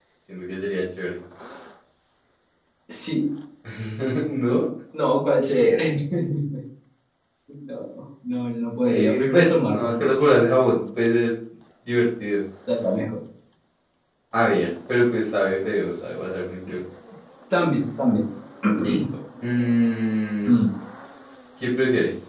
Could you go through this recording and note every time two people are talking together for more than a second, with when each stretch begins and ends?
8.8-10.1

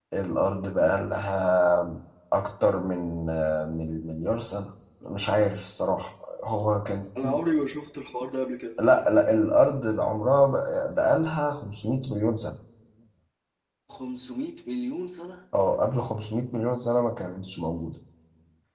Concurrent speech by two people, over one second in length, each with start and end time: none

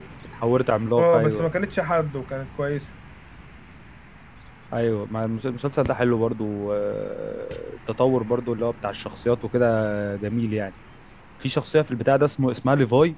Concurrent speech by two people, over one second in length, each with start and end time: none

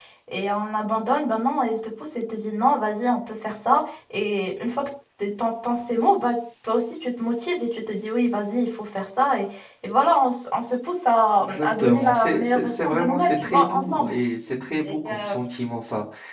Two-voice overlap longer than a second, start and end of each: 11.4-14.1

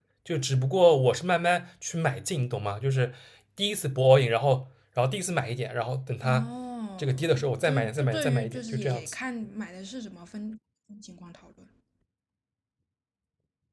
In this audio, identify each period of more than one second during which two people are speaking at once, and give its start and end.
7.0-9.2

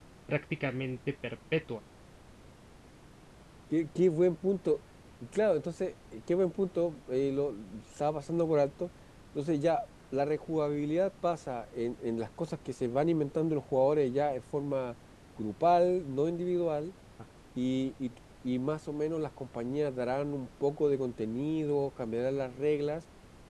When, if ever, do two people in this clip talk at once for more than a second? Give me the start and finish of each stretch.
none

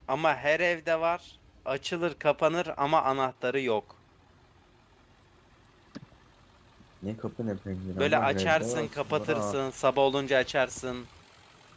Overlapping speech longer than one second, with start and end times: 8.0-9.6

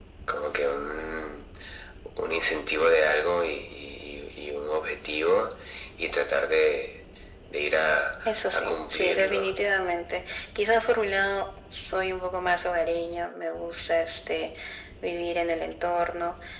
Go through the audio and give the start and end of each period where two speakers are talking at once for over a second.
8.2-9.5

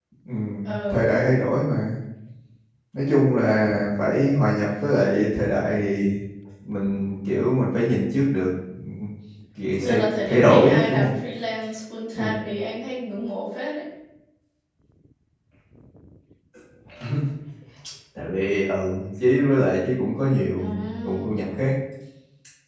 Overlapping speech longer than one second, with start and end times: 9.8-11.1

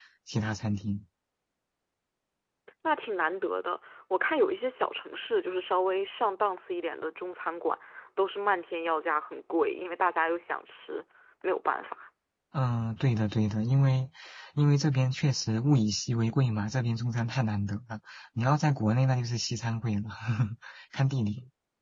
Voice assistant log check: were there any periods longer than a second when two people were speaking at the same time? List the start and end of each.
none

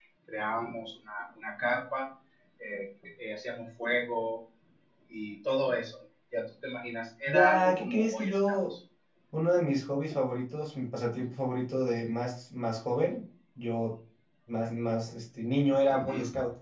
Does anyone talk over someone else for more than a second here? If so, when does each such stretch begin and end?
7.3-8.6

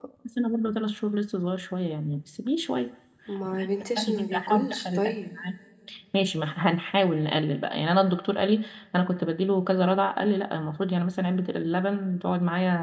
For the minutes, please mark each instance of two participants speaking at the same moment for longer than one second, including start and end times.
4.0-5.3

